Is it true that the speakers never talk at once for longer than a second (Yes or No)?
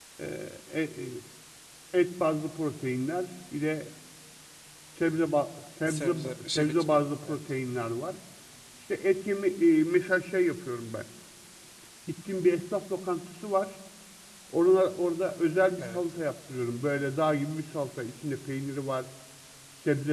No